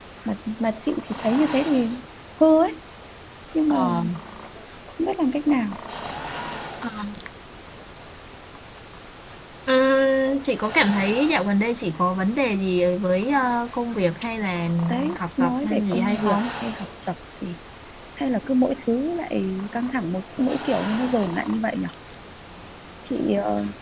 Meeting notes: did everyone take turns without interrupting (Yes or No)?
No